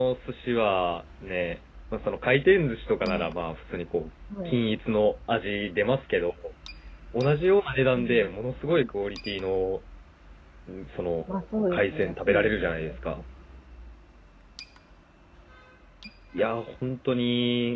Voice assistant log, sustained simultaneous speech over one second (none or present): present